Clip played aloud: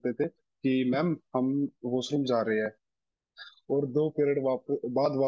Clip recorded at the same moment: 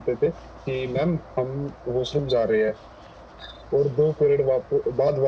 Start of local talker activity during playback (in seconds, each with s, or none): none